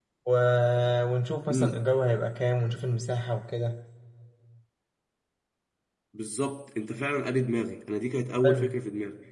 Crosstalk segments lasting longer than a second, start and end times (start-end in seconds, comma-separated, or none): none